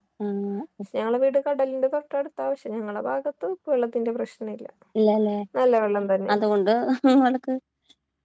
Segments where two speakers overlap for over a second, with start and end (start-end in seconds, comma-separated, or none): none